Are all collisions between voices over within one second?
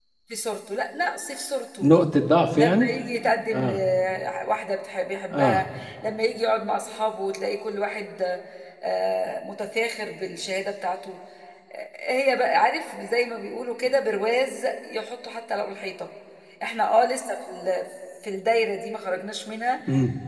Yes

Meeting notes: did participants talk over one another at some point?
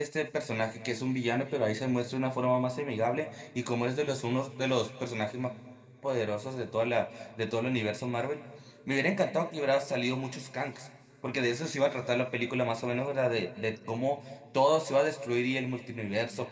No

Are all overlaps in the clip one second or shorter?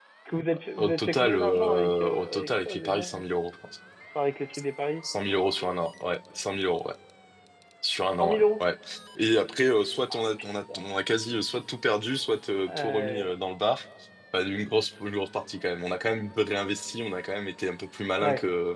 No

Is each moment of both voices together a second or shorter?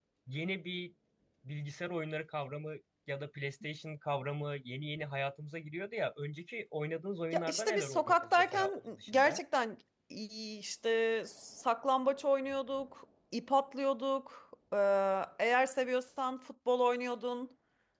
No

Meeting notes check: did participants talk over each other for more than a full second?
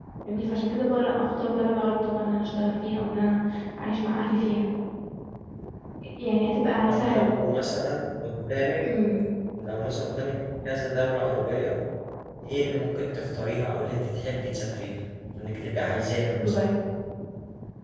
No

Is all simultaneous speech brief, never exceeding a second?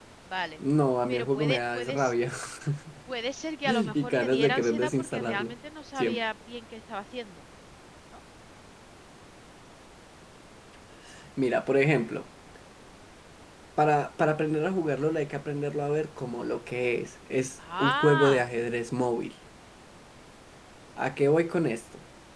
No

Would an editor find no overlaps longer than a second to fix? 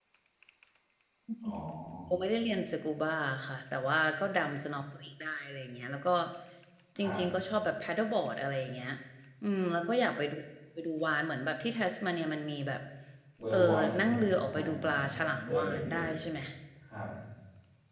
No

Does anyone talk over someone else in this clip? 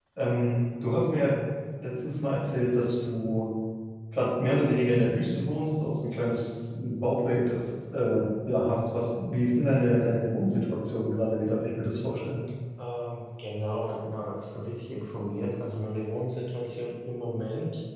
No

